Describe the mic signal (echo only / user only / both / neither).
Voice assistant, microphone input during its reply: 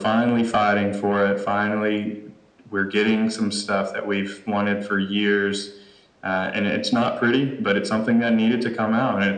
echo only